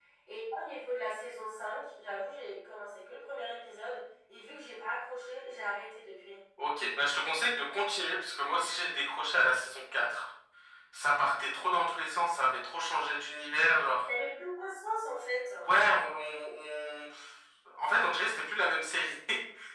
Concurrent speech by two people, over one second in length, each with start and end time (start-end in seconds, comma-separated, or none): none